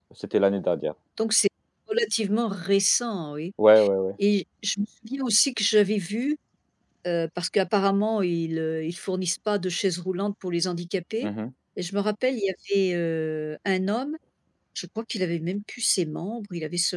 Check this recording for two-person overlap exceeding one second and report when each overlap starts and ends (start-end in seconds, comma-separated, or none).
none